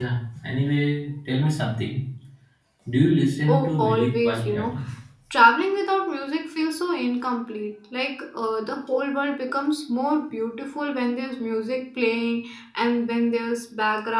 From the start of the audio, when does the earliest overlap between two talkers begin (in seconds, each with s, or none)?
3.5 s